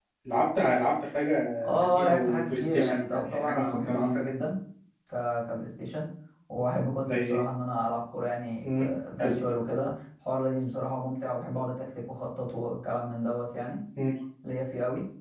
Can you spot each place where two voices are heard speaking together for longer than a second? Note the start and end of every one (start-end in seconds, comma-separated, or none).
1.7-4.2